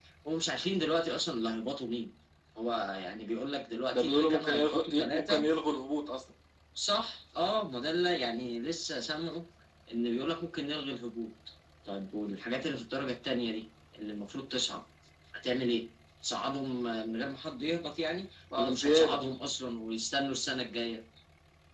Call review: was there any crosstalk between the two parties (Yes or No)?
Yes